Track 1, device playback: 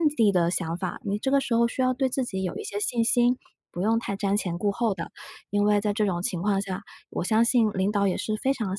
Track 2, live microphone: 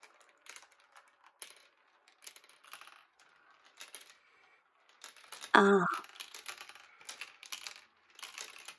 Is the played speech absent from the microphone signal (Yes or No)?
Yes